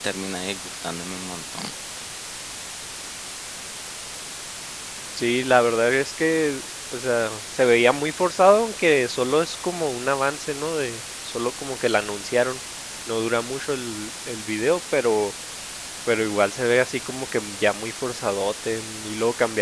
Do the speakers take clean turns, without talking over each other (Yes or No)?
Yes